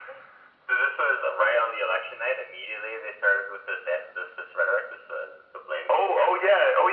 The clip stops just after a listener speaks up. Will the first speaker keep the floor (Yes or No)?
No